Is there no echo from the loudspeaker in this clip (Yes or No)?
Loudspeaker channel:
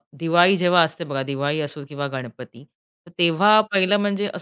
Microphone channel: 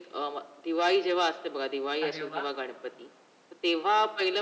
No